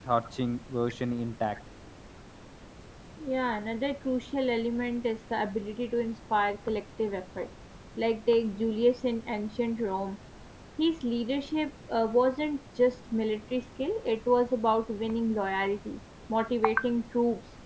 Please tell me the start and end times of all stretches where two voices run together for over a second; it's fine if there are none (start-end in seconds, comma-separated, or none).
none